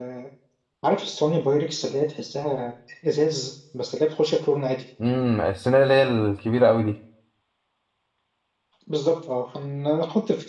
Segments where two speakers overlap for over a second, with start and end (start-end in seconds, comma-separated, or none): none